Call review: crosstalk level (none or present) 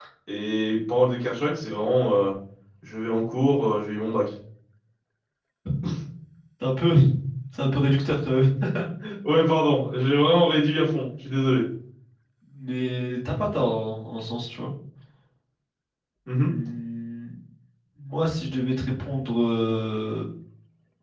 none